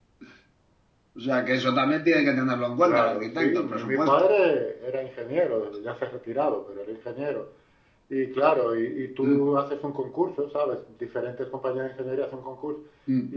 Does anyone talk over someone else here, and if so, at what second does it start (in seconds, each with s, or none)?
2.8 s